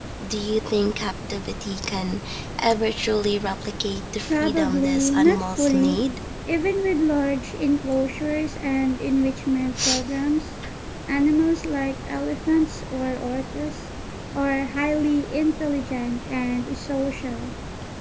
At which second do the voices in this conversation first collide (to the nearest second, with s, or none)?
4 s